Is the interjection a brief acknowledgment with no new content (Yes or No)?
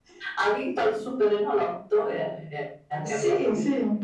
No